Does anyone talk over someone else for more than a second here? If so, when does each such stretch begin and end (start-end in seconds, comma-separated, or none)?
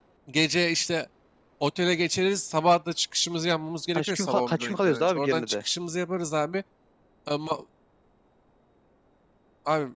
4.0-5.6